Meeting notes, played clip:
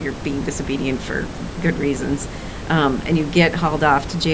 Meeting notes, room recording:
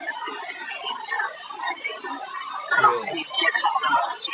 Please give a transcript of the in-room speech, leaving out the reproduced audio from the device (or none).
really